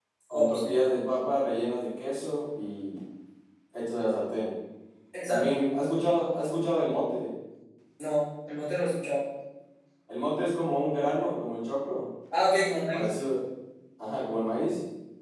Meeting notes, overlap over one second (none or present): none